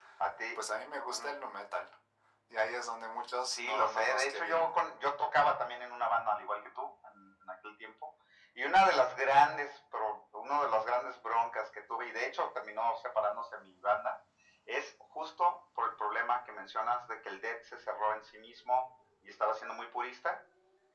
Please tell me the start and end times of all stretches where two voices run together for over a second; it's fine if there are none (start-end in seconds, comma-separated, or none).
3.6-4.8